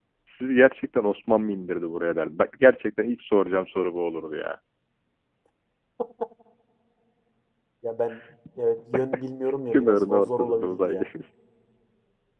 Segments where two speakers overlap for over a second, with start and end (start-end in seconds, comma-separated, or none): 9.7-11.0